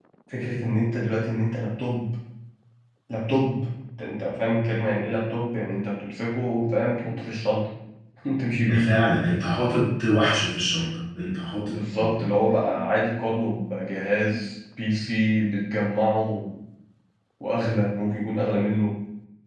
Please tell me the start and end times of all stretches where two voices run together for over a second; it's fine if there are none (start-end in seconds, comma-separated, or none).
none